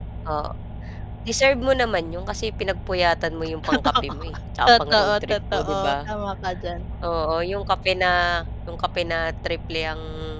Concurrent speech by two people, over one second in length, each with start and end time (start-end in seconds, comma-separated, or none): 4.7-6.1